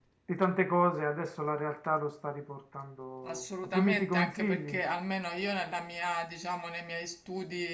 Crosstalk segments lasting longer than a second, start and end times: 3.2-4.8

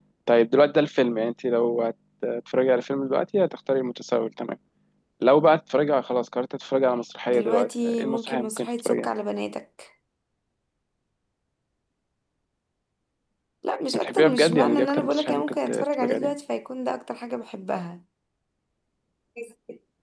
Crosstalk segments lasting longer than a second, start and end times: 7.3-9.1, 14.0-16.3

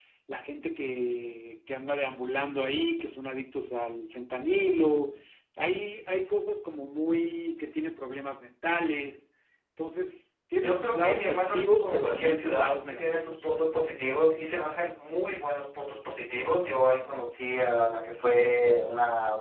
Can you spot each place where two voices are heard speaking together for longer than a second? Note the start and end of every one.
10.6-13.5

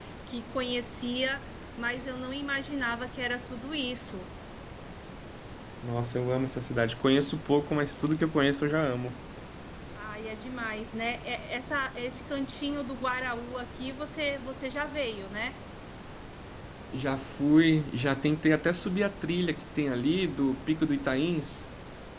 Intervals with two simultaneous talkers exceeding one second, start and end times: none

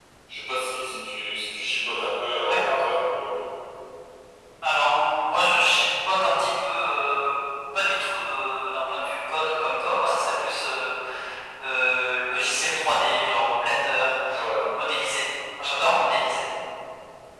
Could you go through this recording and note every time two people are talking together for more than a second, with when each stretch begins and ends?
none

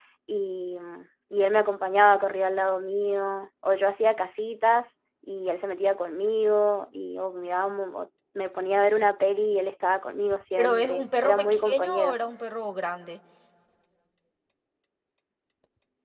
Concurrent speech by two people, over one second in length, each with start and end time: 10.6-12.2

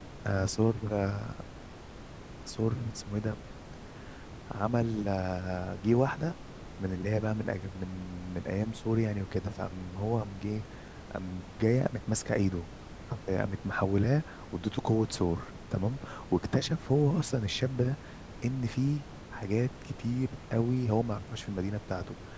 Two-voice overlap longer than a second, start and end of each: none

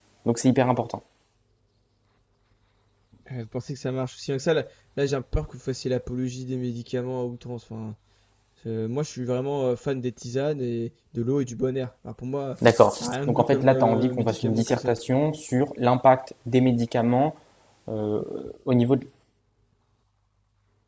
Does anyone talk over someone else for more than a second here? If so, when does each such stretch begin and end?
13.0-14.9

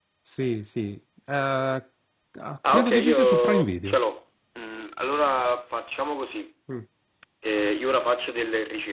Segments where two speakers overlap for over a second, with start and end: 2.7-4.0

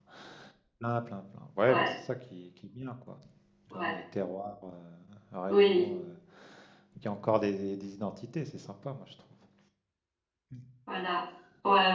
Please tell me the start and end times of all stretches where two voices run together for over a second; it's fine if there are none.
none

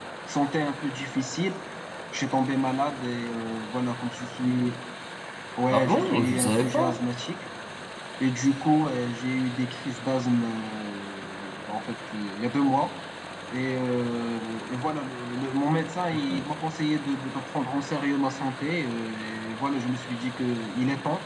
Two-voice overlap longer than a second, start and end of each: 5.7-7.0

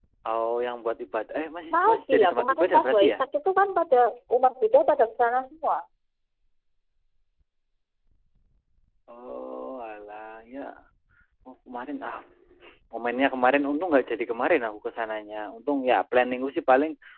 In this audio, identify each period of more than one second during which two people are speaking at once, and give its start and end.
1.7-3.2

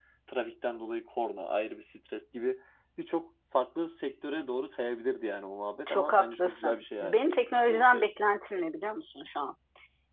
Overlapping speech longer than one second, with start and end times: 5.9-7.2

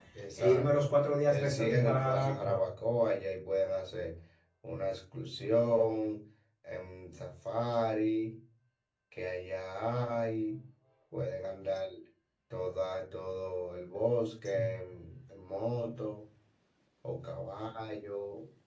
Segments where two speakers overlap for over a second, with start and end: 1.3-2.6

